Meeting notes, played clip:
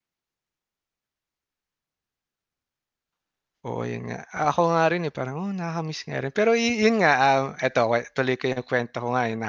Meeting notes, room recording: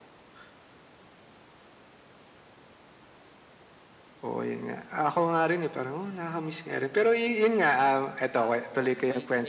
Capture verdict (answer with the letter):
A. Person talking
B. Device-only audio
A